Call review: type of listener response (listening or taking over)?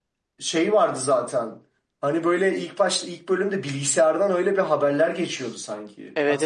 taking over